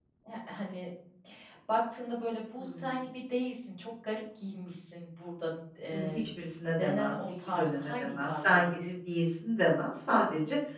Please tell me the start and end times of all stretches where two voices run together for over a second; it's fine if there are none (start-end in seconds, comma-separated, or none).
6.8-8.9